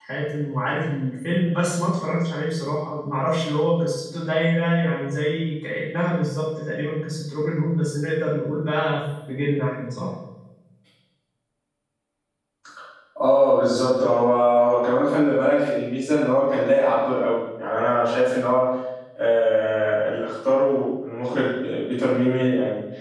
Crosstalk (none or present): none